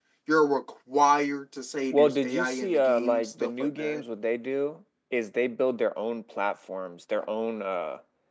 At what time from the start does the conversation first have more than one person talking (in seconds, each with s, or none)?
1.9 s